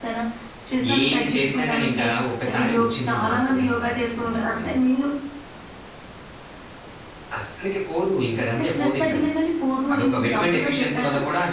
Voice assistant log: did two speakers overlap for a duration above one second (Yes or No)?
Yes